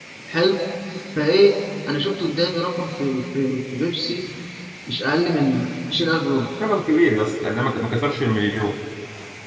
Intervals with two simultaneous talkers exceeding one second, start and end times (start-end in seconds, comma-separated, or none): none